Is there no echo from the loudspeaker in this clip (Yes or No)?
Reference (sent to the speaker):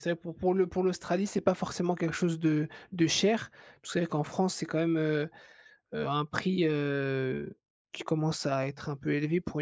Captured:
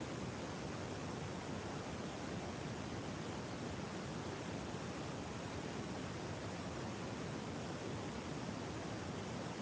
Yes